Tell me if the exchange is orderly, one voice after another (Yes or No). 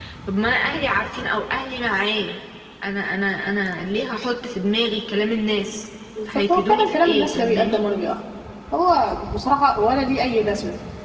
No